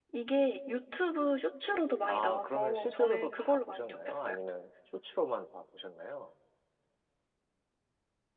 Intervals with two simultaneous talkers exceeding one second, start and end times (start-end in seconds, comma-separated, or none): 2.1-4.3